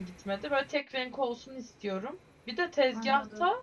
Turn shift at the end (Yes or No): No